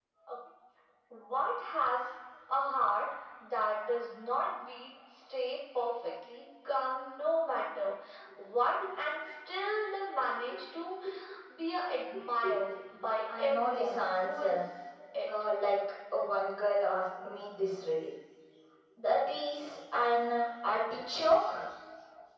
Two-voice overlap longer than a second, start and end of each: 13.4-14.6

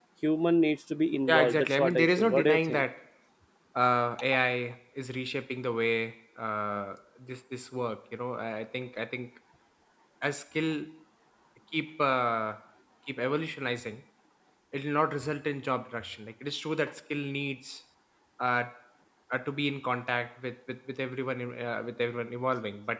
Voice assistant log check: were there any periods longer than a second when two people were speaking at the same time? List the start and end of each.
1.3-2.8

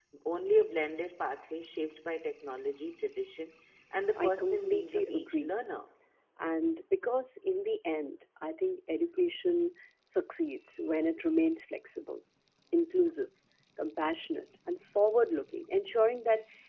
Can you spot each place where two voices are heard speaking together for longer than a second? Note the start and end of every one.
4.2-5.5

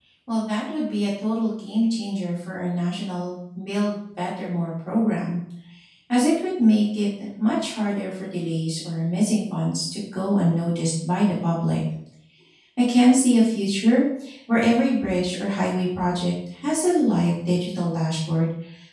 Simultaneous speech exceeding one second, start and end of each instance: none

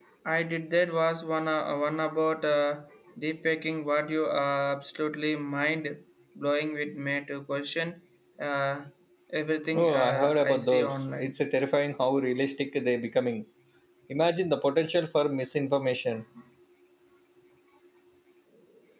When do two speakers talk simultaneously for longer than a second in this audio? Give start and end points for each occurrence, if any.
9.7-11.3

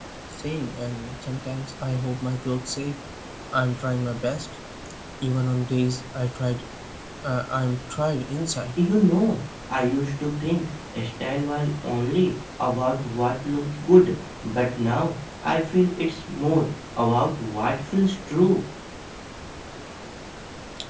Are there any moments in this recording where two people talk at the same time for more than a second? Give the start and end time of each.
none

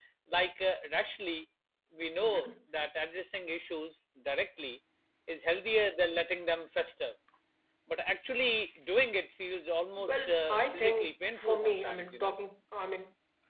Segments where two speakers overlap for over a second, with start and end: 10.0-12.3

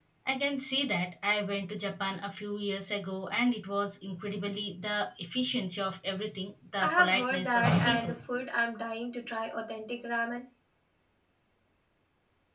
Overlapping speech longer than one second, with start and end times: 6.8-8.2

